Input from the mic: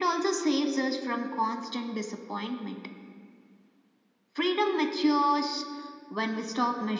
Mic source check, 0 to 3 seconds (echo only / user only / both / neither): echo only